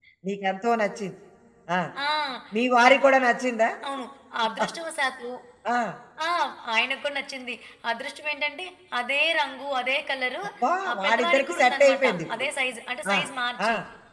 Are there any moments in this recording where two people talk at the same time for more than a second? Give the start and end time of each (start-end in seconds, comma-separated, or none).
10.9-12.5